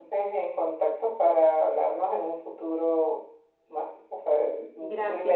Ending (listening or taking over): taking over